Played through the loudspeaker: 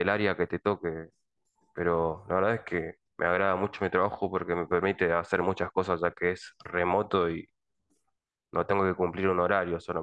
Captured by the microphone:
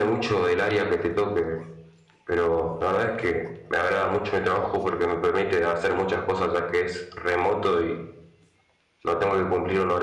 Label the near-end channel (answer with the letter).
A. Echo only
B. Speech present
A